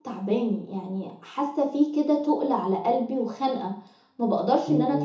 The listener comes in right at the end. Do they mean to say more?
Yes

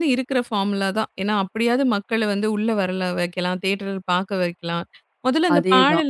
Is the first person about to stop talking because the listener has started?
No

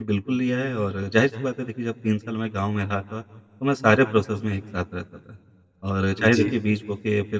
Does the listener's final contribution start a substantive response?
No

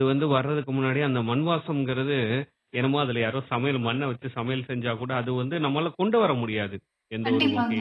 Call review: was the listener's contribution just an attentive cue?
Yes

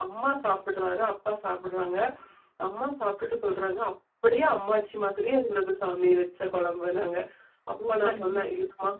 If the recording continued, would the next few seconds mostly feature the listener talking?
No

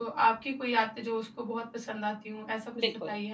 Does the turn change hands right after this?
Yes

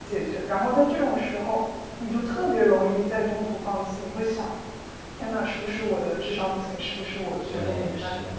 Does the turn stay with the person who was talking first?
No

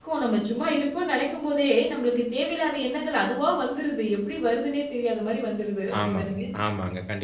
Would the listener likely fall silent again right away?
No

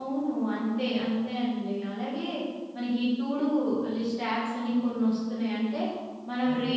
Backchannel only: Yes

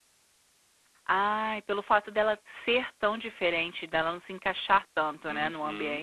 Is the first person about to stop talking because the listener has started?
Yes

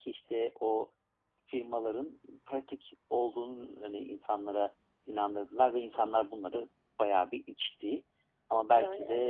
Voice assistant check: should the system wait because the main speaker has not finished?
Yes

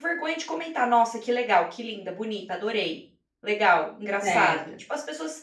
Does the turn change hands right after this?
No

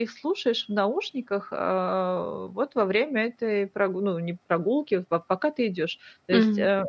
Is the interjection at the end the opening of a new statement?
No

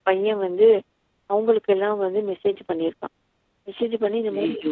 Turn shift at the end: No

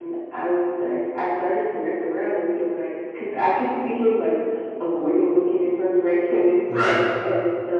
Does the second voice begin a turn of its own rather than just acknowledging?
No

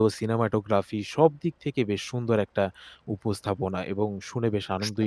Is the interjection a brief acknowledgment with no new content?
No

